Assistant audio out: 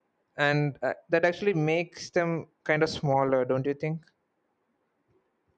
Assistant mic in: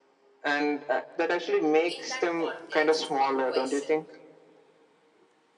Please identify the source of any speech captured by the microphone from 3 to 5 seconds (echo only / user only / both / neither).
both